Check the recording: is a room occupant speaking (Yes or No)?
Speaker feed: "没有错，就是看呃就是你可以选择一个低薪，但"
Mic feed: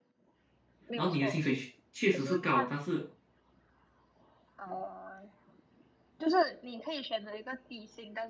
Yes